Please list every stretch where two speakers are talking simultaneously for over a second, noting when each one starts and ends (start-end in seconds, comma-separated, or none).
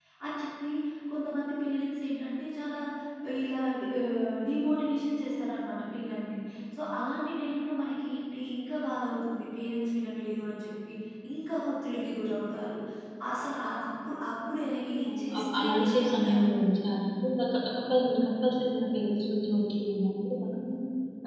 15.1-16.3